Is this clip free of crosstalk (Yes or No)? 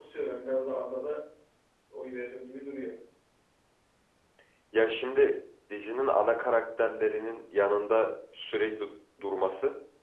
Yes